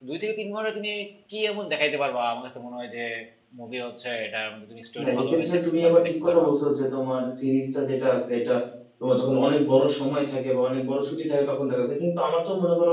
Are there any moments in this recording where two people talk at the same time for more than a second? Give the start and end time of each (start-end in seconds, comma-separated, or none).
5.0-6.5